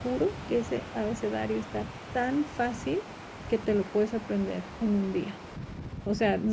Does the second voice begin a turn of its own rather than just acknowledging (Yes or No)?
No